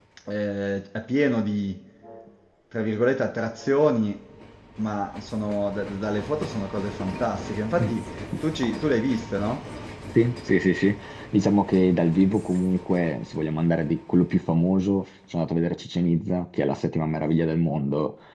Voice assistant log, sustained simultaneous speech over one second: none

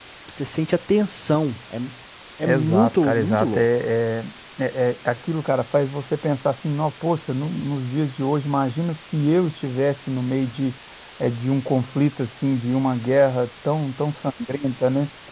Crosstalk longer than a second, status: present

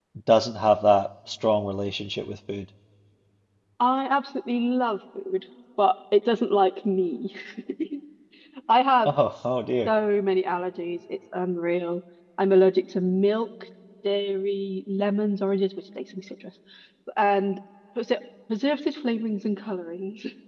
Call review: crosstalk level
none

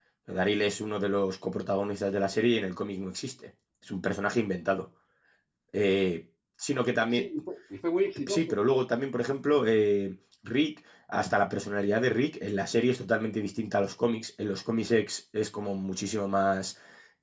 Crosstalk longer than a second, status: none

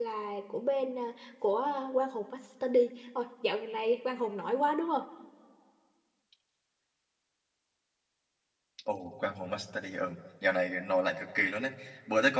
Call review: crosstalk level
none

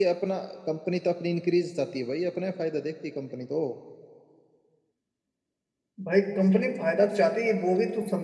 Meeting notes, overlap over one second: none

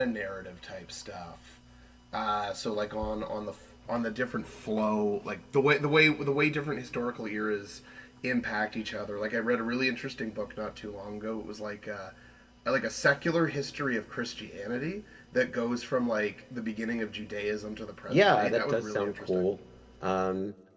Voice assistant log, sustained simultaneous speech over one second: present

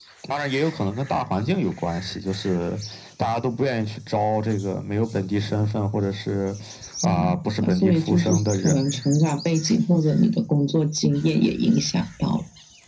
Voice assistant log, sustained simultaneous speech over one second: present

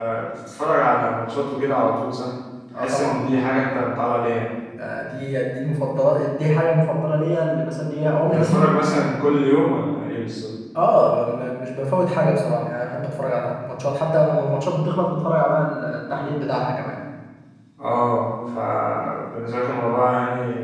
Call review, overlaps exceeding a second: none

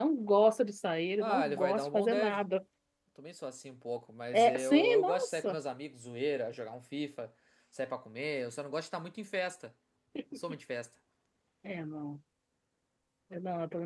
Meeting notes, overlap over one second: present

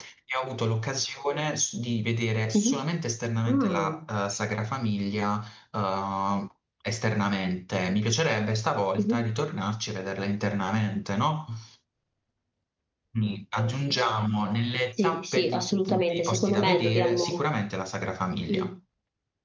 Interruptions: present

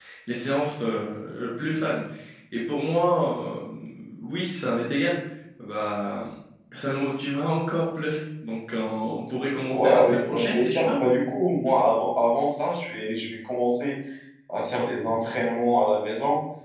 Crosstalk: present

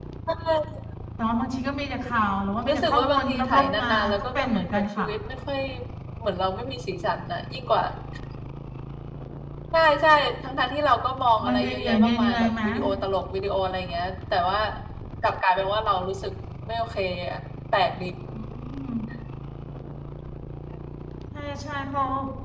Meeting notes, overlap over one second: present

